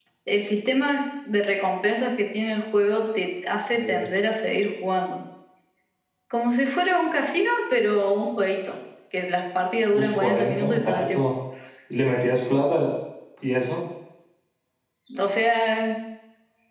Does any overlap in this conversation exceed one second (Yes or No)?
Yes